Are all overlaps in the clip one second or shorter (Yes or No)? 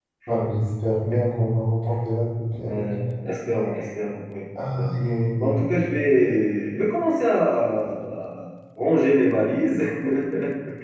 Yes